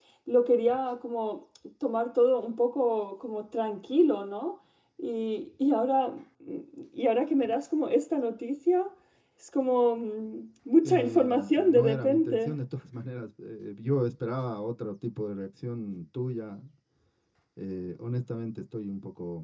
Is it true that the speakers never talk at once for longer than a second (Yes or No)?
No